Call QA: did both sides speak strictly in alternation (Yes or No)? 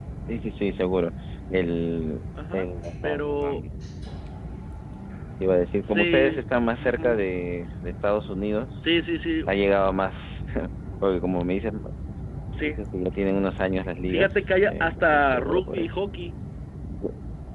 No